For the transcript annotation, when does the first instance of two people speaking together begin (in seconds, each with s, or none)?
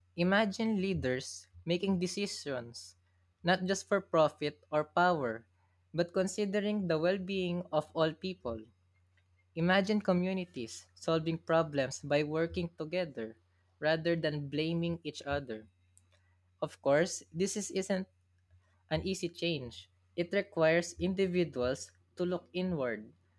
none